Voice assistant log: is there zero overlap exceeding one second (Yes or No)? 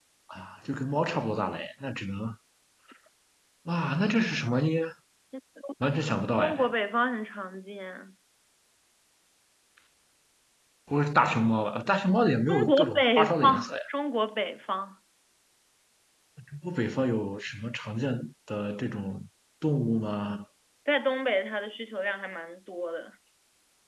No